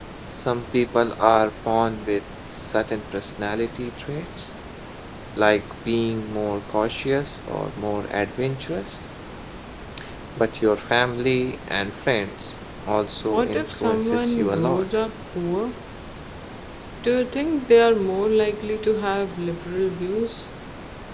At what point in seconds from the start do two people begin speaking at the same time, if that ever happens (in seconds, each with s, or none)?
13.3 s